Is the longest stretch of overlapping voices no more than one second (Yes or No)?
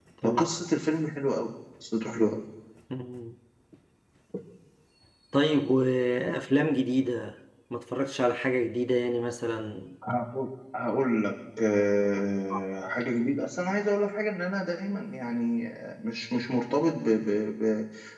Yes